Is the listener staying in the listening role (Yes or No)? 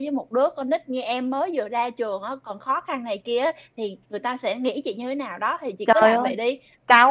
No